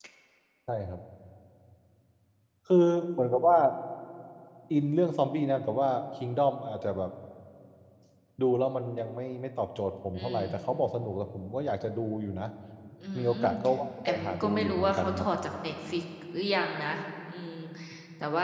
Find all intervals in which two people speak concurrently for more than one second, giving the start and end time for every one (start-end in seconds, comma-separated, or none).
14.1-15.3